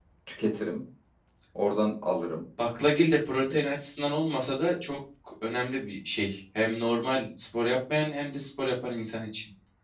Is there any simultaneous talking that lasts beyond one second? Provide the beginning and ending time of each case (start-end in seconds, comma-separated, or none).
none